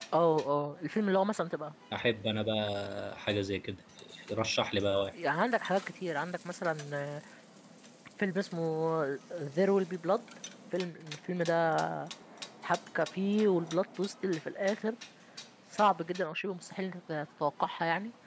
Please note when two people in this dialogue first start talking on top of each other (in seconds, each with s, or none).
none